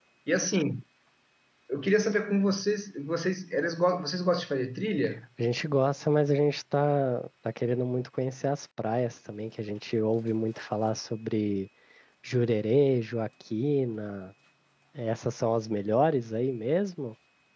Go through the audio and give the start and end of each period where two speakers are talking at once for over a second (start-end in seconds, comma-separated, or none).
none